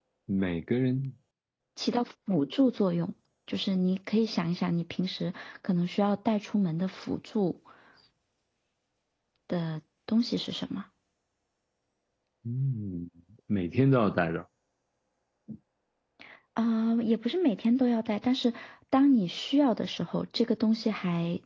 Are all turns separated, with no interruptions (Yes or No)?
Yes